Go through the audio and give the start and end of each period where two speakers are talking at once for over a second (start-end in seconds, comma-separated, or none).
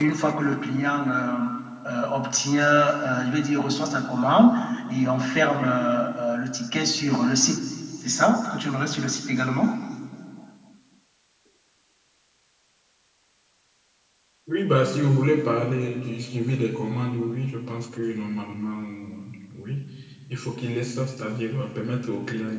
none